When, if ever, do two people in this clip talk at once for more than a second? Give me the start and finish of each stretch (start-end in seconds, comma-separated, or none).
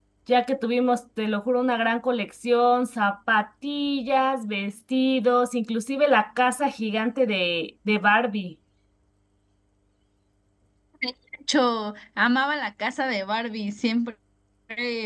none